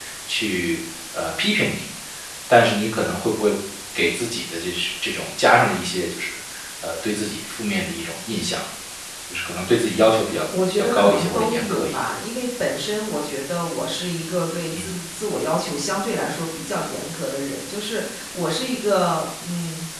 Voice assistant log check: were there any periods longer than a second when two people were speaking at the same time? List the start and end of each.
10.7-12.1

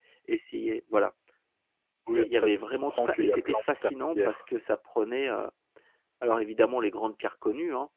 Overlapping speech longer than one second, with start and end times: 2.9-4.4

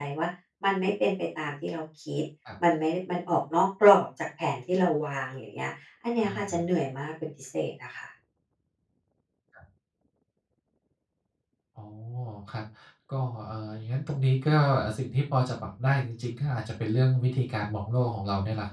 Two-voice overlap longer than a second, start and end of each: none

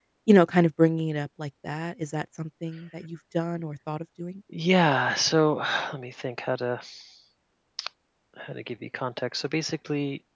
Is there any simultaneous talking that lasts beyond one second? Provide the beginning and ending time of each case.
none

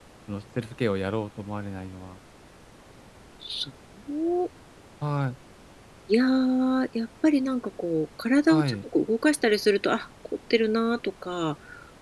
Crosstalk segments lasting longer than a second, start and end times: none

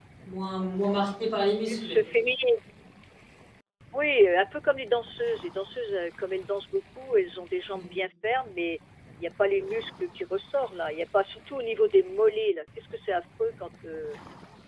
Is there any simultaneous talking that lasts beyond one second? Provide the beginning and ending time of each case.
none

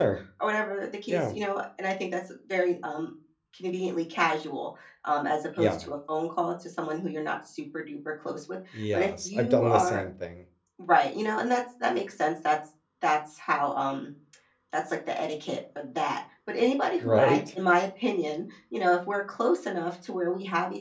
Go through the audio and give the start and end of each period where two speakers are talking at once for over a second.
8.7-10.0

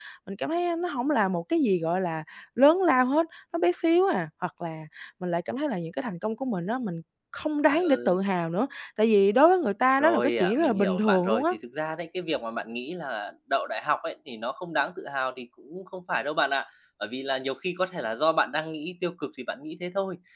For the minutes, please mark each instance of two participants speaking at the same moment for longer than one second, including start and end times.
10.0-11.4

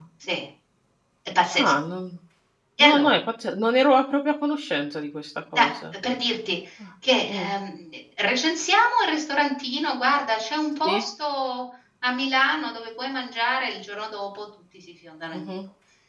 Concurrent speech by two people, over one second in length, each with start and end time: none

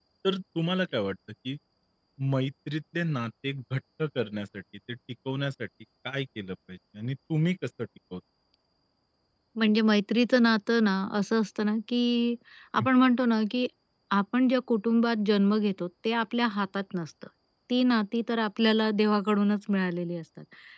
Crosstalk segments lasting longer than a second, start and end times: none

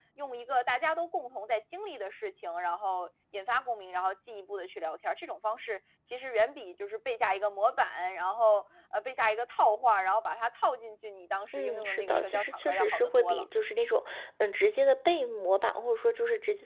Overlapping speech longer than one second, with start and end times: 11.6-13.4

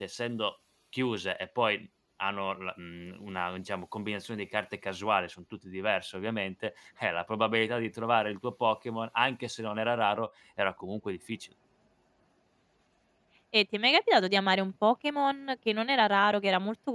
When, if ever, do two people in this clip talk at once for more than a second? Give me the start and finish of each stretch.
none

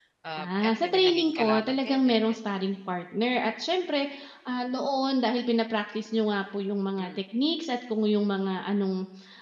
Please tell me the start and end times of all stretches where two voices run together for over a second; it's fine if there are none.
0.6-2.6

